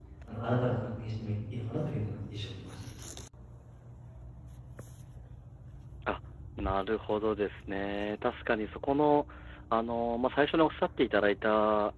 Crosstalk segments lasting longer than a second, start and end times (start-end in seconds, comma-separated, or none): none